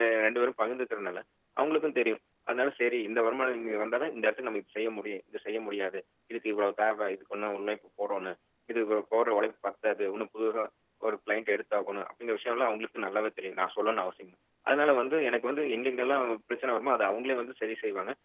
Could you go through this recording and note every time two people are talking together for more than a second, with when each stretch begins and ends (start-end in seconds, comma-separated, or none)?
none